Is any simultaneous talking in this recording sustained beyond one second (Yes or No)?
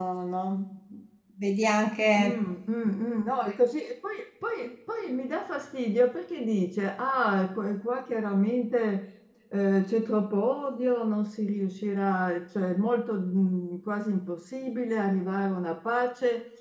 No